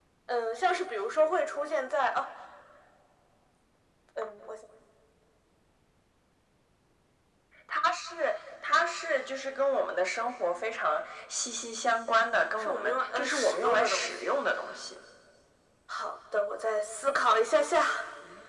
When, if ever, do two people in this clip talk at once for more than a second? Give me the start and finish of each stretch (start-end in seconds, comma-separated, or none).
12.6-14.3